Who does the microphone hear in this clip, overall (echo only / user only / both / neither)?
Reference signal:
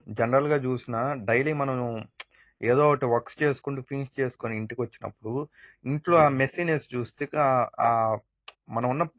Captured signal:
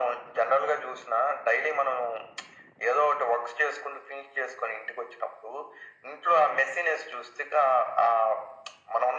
echo only